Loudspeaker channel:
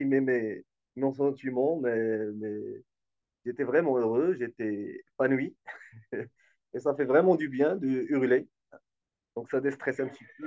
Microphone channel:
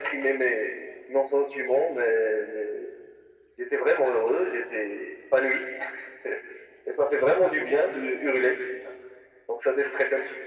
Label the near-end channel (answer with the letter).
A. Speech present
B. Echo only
B